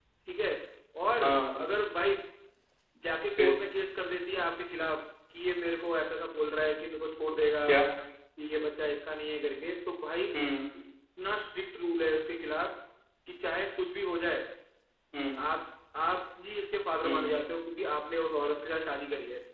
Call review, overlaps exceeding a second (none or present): none